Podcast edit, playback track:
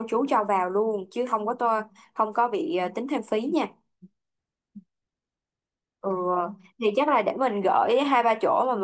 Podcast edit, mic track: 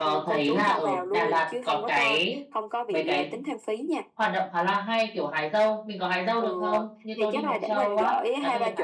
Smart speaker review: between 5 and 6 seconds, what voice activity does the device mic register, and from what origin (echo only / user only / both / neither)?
user only